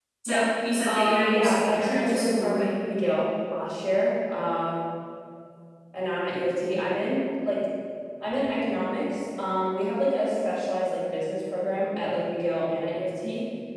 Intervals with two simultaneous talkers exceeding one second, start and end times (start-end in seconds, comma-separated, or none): 0.9-2.7